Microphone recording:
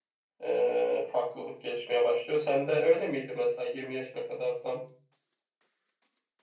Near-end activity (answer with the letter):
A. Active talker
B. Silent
A